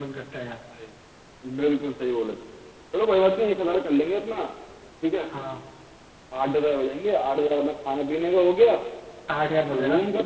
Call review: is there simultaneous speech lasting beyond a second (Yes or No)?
No